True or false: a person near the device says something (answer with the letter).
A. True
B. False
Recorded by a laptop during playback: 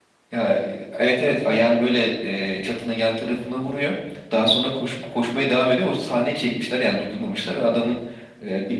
B